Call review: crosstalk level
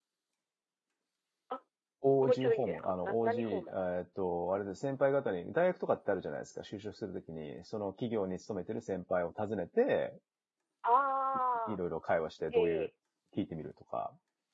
present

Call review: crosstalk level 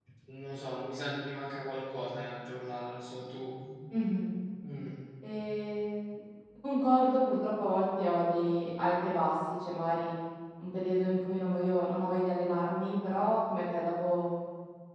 none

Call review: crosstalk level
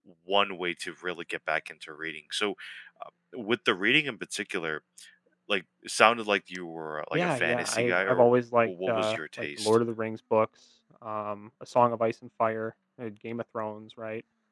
present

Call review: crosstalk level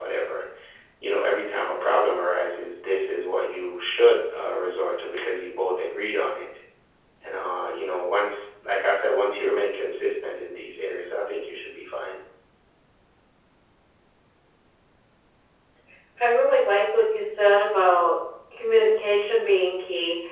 none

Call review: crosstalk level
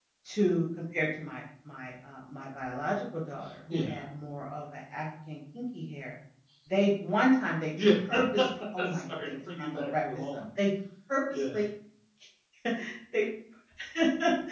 present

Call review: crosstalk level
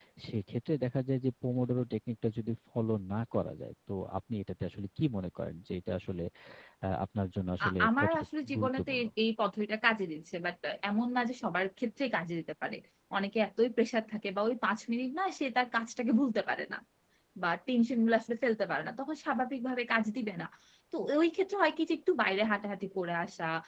present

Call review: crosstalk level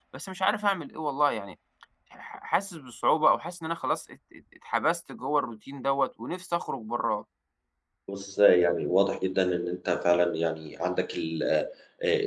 none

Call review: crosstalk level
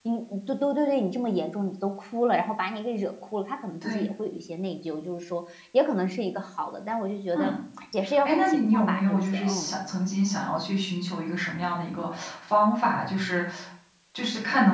present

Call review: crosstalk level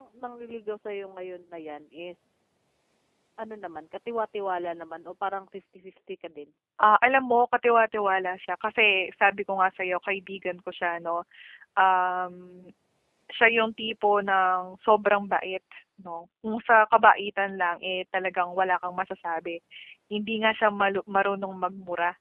none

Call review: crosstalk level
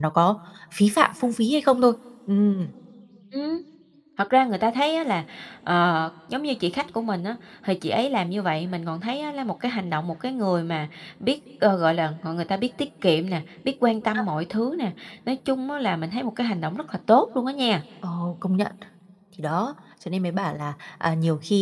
none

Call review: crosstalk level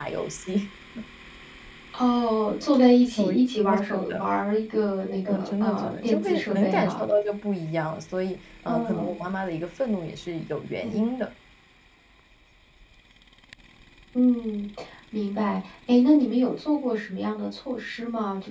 present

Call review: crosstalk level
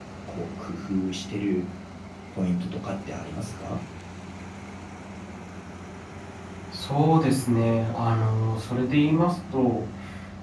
none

